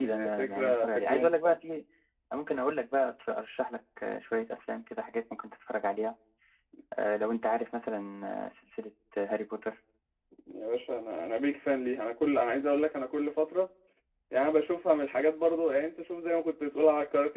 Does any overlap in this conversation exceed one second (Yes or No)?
Yes